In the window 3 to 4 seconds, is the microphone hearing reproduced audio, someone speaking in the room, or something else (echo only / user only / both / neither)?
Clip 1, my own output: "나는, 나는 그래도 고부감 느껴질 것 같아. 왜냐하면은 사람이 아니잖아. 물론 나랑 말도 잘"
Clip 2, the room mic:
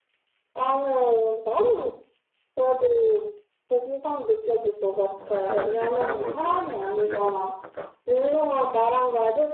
echo only